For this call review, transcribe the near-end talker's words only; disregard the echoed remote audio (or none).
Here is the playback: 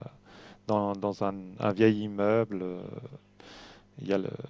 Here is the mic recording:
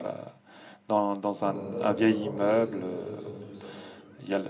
Oh là là là là, oh que c'est intéressant tout ça.